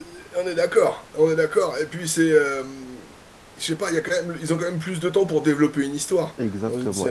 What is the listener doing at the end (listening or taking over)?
taking over